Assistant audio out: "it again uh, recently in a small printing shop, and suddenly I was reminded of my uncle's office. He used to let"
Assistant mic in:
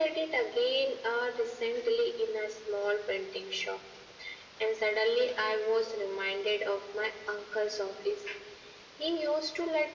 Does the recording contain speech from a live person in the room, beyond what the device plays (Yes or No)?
No